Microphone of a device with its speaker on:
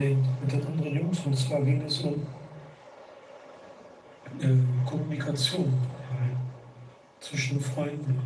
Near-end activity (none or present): none